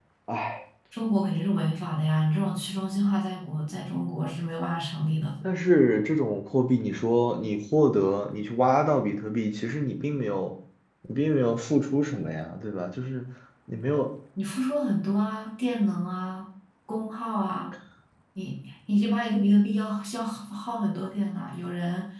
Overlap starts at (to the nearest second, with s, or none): none